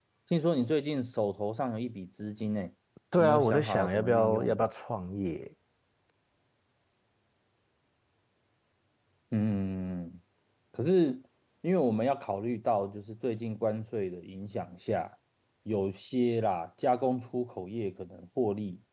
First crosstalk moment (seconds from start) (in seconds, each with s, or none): 3.2 s